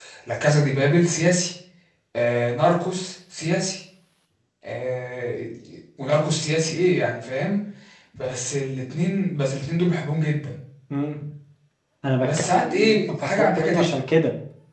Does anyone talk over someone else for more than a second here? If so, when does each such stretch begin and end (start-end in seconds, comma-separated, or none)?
12.2-14.0